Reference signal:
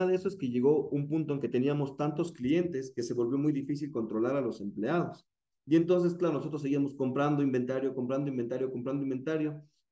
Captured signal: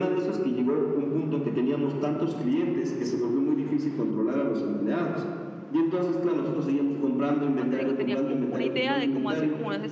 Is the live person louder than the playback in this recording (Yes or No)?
No